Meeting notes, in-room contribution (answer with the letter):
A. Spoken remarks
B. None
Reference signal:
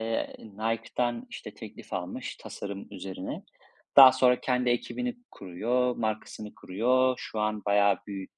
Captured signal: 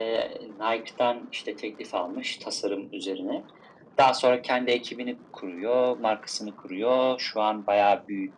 B